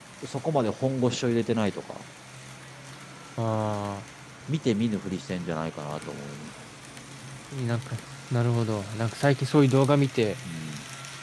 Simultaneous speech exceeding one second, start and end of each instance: none

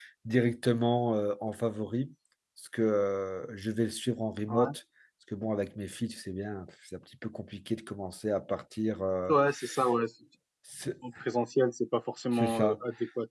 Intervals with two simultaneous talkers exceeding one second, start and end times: none

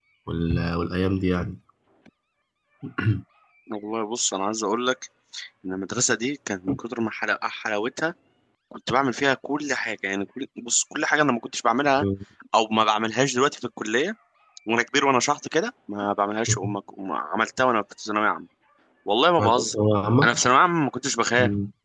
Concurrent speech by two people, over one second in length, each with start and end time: none

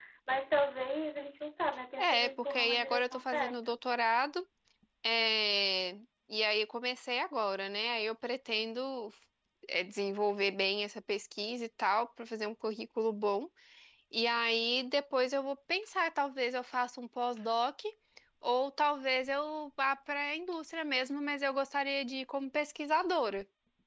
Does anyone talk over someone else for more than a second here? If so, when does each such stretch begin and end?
2.0-3.8

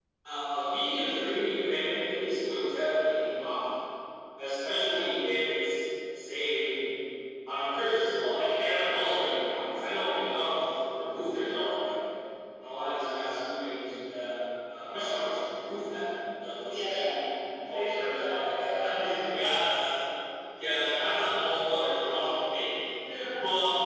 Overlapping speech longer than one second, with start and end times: 17.7-19.1

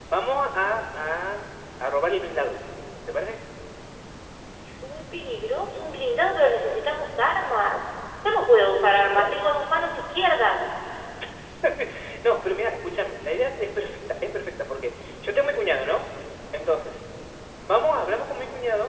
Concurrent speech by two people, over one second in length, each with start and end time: none

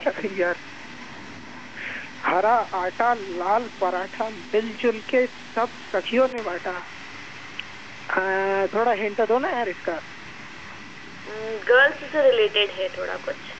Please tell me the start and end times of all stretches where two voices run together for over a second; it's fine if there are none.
none

